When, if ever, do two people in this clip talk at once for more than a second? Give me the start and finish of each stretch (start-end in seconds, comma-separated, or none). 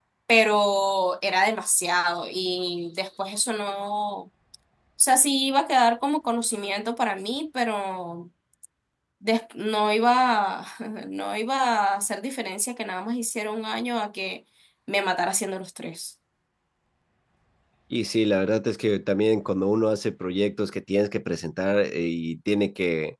none